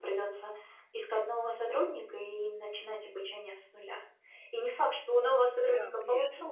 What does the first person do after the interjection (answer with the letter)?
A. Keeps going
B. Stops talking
A